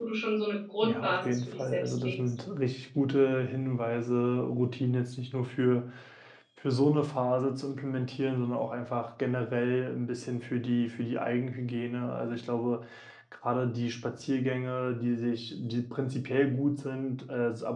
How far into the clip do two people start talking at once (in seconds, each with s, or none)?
0.8 s